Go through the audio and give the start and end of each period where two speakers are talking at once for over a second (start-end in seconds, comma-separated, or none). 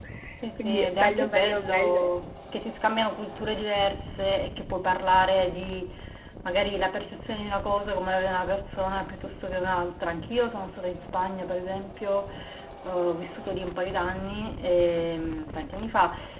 0.6-2.1